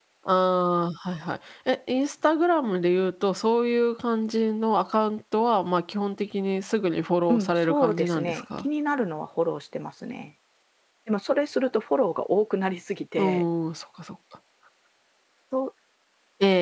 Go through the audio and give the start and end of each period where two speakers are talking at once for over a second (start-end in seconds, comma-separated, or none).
7.3-8.7